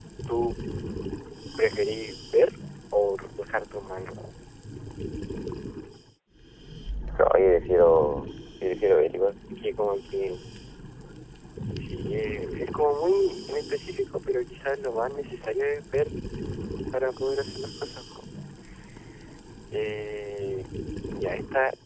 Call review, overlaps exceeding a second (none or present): none